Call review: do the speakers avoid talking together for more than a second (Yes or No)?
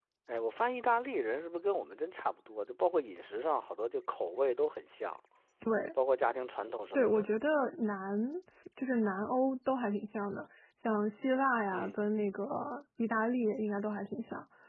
Yes